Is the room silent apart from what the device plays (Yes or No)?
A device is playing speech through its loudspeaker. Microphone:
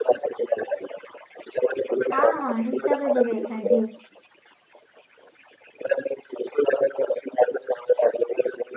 No